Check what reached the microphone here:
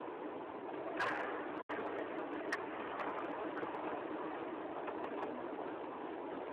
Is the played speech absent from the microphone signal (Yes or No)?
Yes